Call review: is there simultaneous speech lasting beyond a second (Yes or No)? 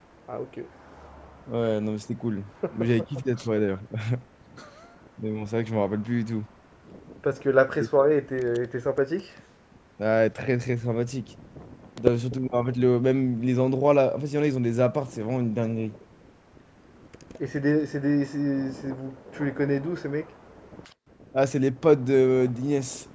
No